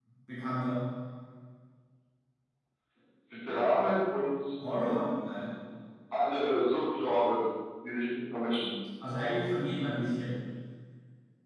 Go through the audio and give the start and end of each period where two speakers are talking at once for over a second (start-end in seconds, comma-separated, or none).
none